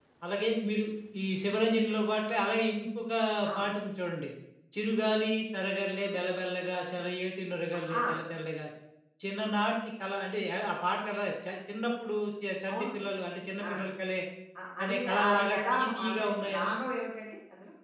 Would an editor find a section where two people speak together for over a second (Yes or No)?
Yes